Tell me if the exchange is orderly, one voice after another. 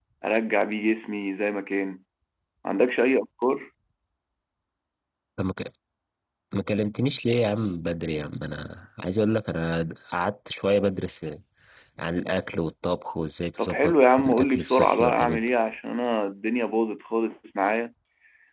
No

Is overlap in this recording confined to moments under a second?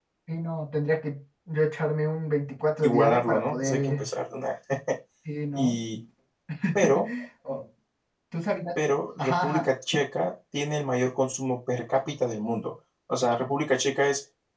No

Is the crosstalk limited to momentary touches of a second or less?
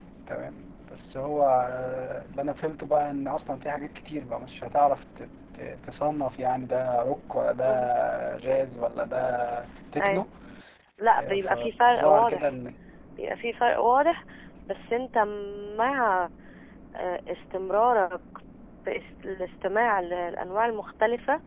No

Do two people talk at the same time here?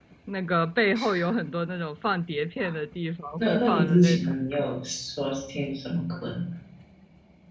Yes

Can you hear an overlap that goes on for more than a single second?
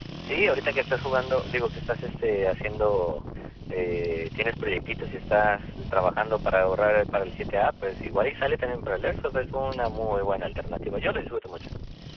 No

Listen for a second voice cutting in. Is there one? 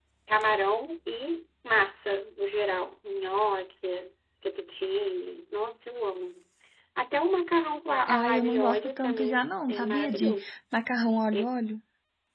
Yes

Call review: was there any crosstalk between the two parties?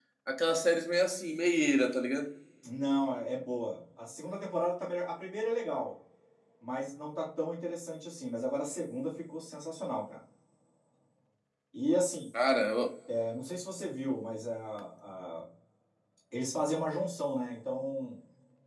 No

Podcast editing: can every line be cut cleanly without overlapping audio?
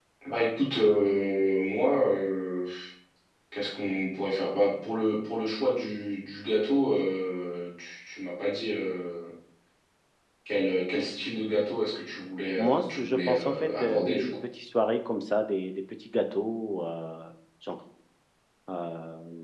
No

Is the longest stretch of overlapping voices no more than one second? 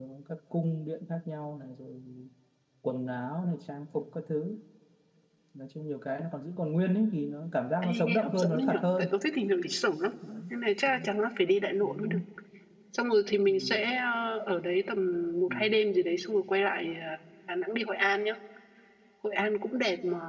No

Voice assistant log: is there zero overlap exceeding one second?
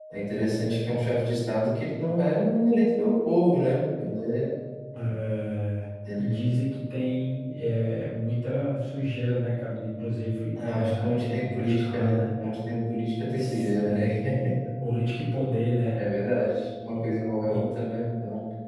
No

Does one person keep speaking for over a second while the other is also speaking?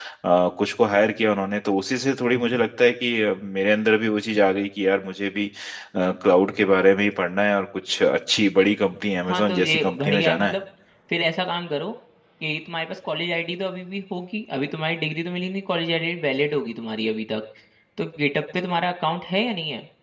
Yes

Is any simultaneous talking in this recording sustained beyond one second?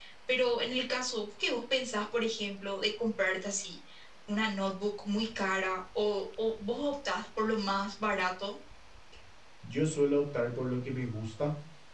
No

